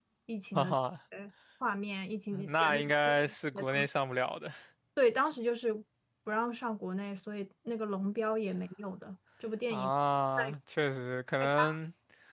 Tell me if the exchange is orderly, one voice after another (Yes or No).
No